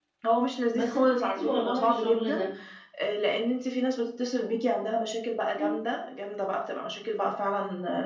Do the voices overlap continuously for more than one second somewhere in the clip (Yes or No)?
Yes